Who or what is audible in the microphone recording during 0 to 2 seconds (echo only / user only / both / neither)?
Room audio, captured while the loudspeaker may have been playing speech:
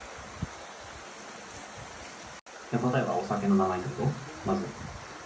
neither